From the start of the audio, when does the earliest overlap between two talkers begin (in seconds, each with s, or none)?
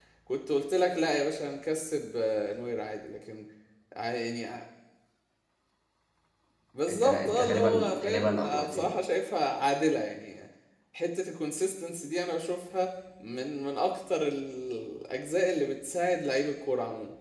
6.9 s